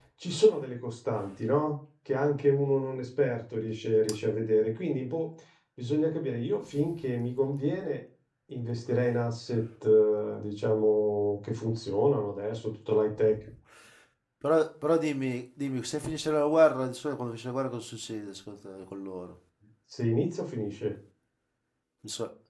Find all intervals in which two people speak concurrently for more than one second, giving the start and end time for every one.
none

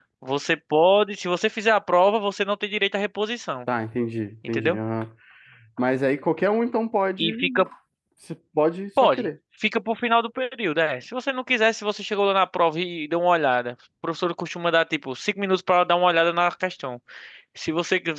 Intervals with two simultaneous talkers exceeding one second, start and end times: none

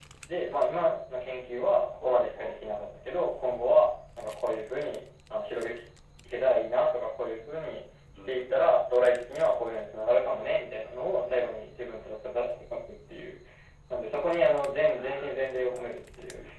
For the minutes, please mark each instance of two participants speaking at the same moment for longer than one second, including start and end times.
none

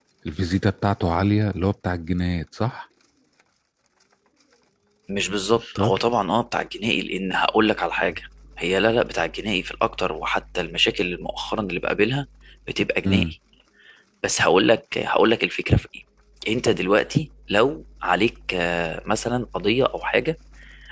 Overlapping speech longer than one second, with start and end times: none

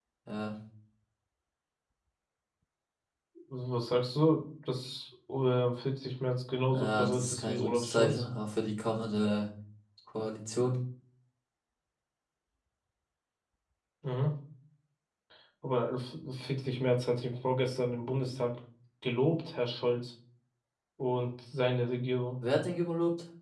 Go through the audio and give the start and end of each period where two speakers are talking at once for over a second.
6.7-8.2

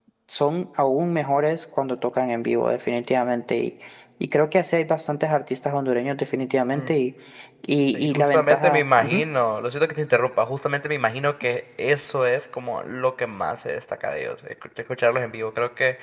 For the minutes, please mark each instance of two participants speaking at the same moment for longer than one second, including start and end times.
7.9-9.2

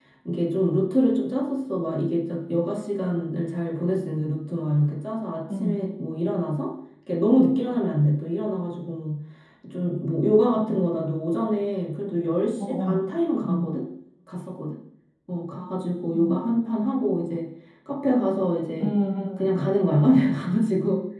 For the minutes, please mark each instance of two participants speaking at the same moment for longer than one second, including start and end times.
none

